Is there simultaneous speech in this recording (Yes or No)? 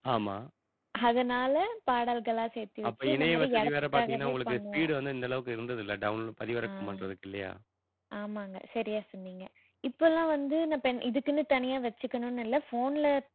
Yes